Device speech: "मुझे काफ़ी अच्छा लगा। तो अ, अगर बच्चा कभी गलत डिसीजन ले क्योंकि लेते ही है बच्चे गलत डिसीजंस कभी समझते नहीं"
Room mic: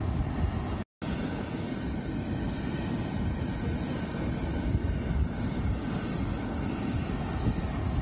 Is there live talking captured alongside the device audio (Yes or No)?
No